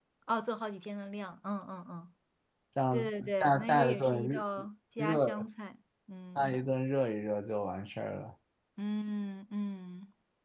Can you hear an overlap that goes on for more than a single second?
Yes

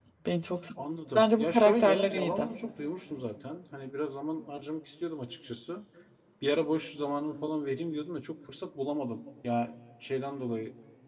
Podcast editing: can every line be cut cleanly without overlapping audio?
No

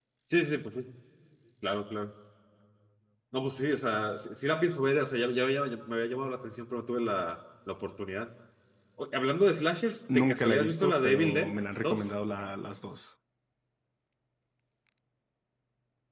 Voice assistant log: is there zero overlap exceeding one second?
No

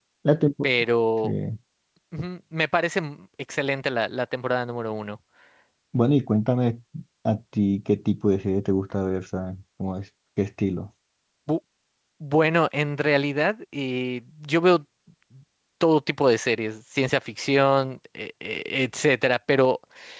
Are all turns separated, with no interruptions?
Yes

